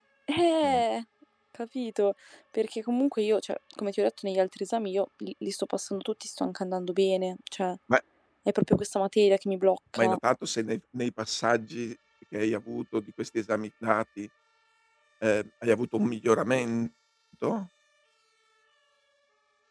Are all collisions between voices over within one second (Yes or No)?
Yes